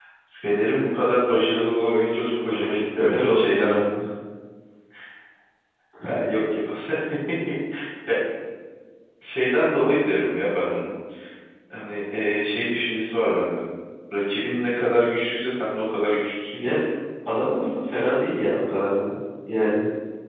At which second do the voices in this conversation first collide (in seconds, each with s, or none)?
1.6 s